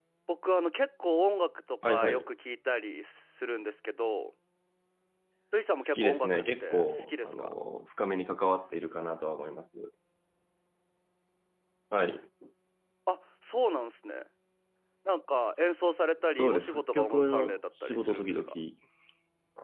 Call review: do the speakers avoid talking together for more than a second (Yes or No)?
No